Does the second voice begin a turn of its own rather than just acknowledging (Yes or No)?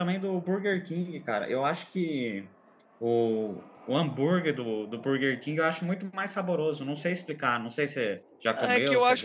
Yes